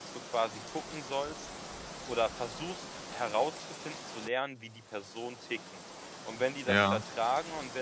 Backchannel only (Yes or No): Yes